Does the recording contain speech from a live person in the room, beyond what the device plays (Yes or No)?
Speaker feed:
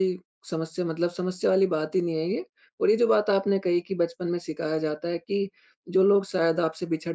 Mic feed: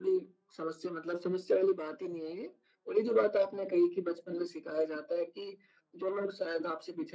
No